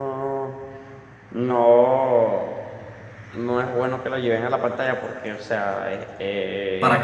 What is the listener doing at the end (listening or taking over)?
listening